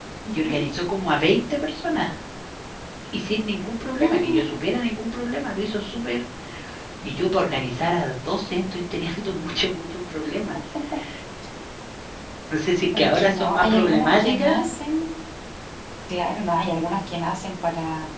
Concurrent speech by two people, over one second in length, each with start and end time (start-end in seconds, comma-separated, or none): 13.0-14.6